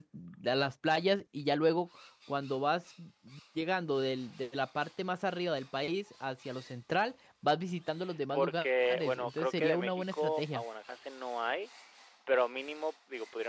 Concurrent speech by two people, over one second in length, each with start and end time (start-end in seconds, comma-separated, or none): 9.2-10.6